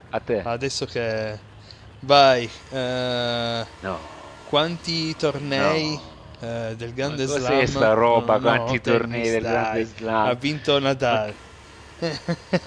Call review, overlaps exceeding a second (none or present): present